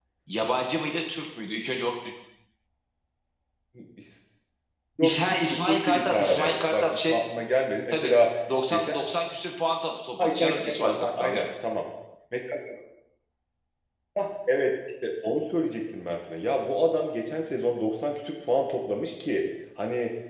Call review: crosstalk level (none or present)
present